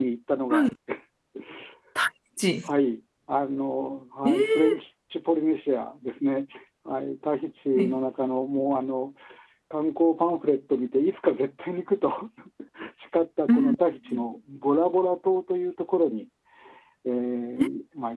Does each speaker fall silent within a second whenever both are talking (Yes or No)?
Yes